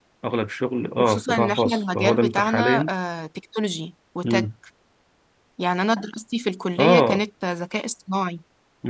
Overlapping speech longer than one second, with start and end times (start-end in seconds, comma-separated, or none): 1.0-2.8